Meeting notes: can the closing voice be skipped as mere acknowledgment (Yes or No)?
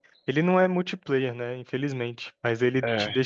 Yes